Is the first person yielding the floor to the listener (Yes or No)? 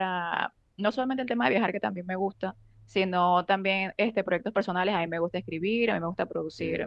No